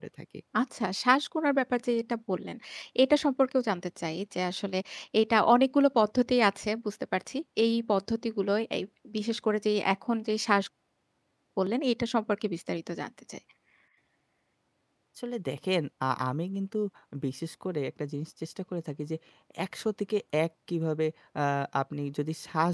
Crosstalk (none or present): none